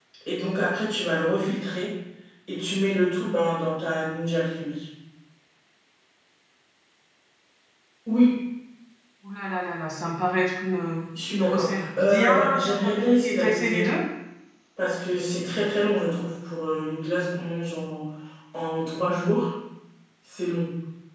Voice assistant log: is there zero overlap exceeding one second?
No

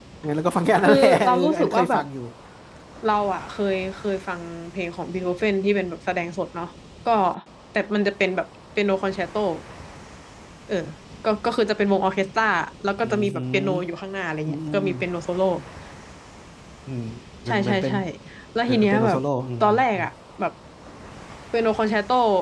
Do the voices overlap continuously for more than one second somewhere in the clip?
Yes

